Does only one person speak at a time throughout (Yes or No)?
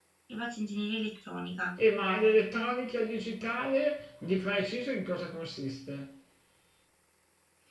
Yes